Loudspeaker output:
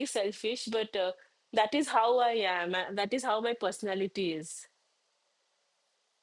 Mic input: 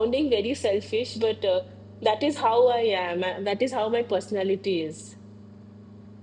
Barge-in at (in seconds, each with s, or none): none